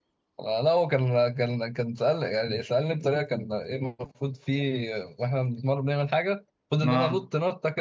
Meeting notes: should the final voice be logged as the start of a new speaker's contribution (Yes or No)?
No